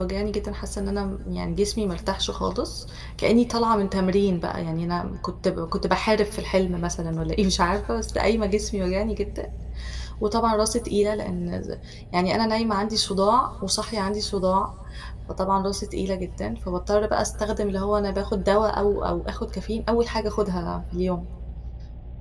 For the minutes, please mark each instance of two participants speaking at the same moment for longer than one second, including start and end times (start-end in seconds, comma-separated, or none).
none